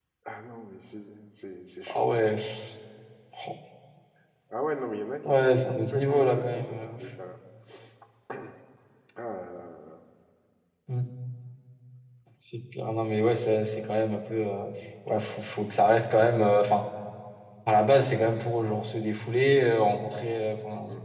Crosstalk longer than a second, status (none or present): present